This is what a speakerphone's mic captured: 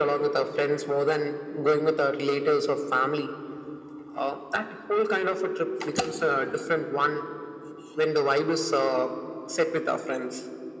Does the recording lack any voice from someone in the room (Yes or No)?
Yes